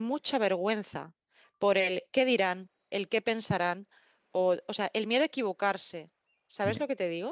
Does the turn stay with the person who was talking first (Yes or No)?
No